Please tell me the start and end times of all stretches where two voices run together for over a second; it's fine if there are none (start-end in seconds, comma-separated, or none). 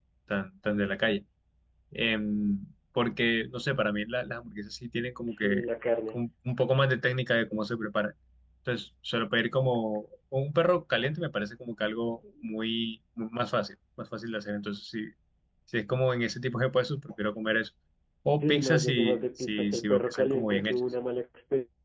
18.4-20.8